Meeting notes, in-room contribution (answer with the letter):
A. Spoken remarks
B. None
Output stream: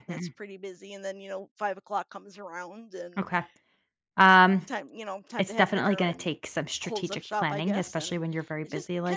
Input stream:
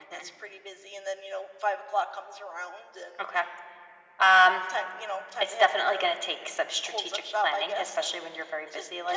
B